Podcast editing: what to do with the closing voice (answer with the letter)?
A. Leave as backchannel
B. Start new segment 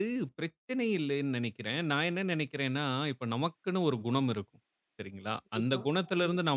A